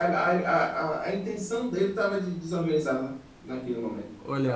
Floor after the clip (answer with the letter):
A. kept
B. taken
B